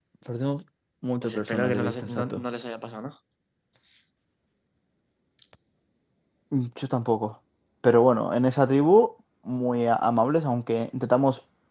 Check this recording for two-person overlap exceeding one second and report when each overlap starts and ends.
1.2-2.4

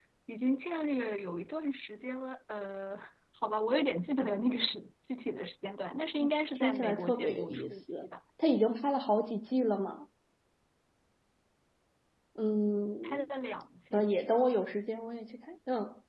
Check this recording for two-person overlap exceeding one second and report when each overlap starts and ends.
6.6-8.1

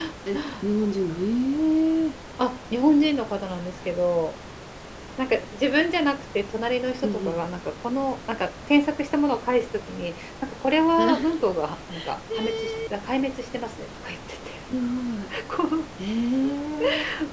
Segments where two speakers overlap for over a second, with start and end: none

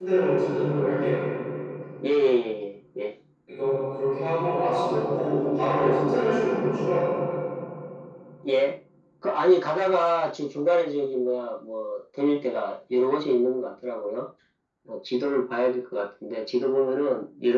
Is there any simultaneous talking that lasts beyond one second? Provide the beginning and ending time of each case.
none

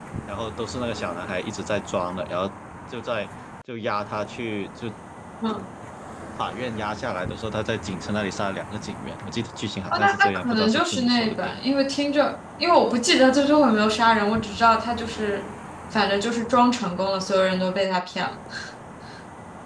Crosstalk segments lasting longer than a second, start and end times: 9.9-11.7

